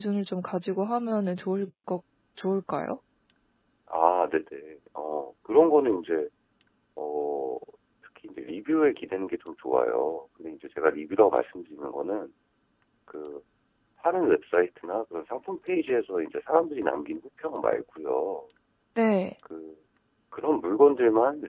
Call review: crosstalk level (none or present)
none